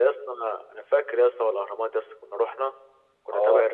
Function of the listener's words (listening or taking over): listening